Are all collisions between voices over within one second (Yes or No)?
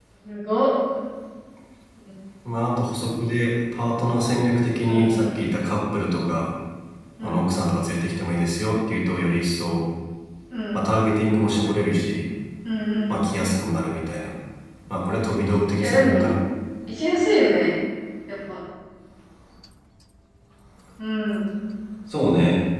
Yes